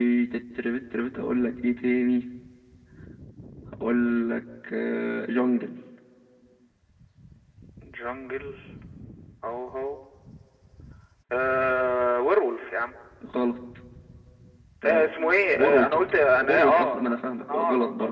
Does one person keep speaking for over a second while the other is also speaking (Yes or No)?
Yes